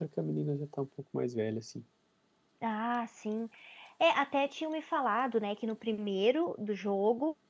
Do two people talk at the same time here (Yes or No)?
No